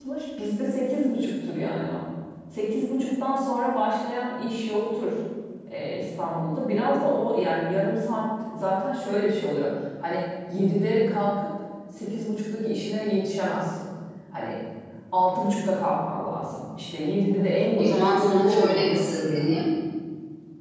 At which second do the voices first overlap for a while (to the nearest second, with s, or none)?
18 s